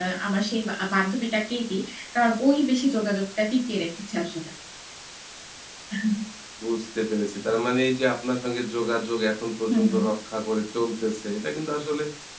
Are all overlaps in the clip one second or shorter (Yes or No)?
Yes